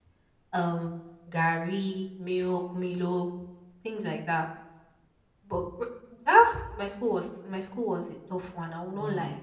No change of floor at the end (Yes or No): No